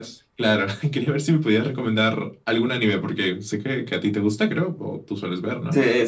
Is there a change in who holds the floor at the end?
Yes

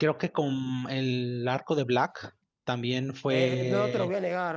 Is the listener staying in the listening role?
No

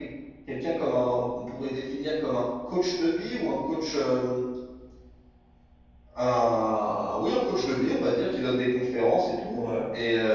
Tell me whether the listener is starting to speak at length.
No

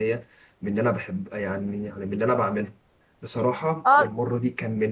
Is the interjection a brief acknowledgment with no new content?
Yes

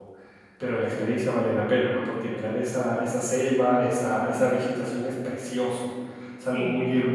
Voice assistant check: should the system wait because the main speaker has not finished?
Yes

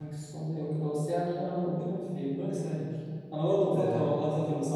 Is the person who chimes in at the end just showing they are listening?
Yes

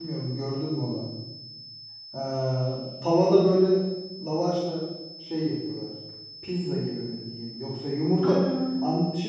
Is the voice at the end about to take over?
No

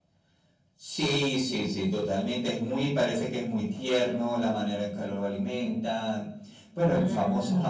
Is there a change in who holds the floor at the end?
No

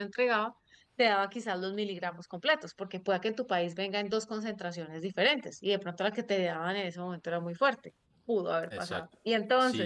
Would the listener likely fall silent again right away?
No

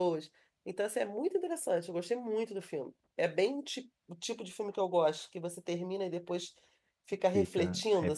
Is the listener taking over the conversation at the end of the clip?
Yes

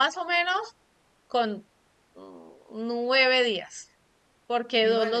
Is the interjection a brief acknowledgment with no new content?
Yes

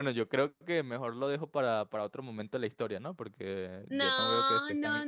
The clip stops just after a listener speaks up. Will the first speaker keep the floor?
No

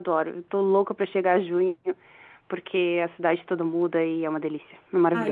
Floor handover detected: Yes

